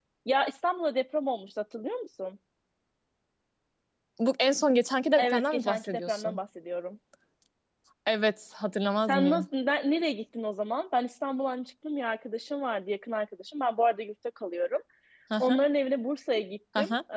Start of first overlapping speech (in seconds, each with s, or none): 5.2 s